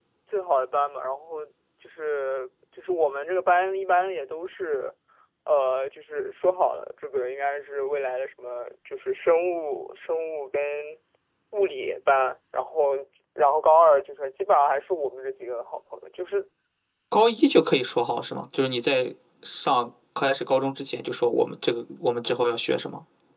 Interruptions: none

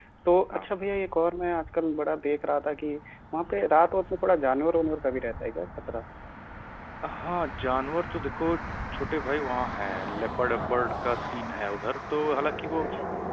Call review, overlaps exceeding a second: none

